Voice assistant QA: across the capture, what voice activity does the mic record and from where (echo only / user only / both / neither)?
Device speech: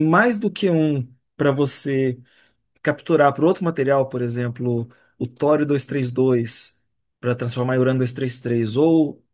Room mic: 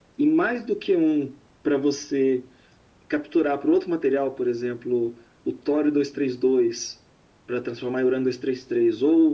echo only